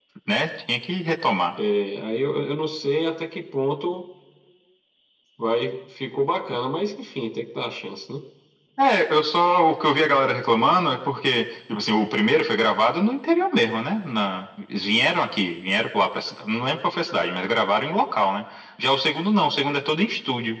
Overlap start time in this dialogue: none

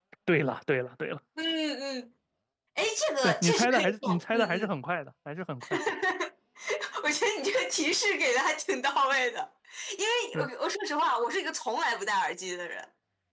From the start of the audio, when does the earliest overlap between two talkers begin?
3 s

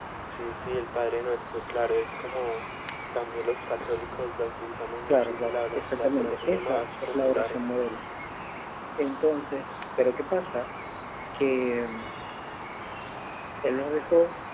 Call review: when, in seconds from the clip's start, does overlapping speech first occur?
5 s

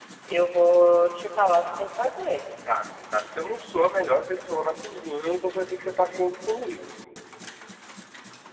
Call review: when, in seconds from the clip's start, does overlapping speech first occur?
none

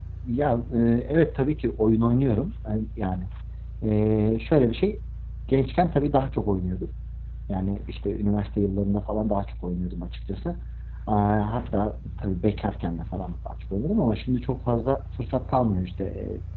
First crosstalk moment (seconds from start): none

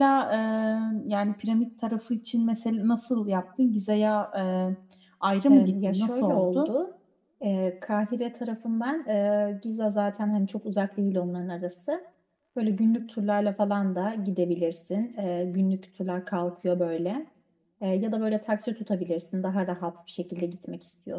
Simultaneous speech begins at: 5 s

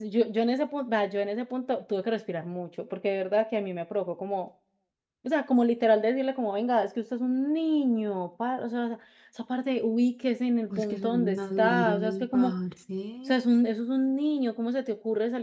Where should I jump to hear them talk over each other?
11 s

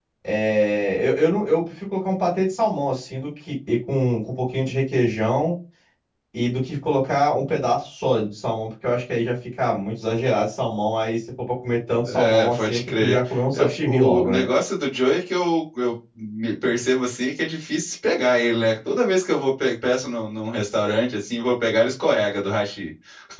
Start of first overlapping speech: 12 s

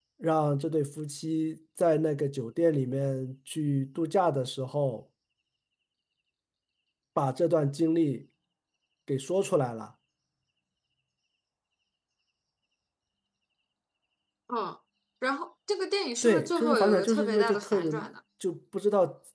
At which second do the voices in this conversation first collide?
16 s

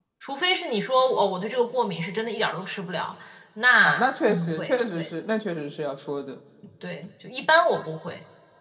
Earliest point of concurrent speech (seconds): 4 s

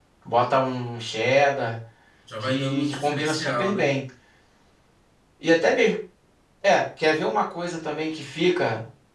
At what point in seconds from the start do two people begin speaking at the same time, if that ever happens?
2 s

